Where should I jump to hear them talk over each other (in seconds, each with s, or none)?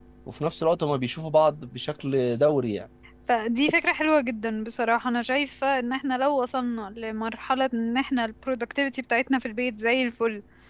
none